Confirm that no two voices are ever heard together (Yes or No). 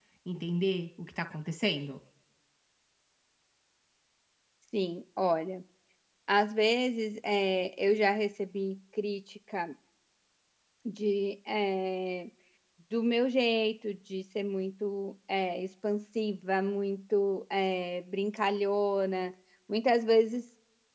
Yes